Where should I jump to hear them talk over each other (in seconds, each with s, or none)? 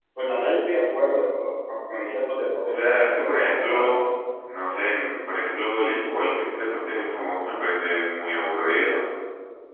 2.7 s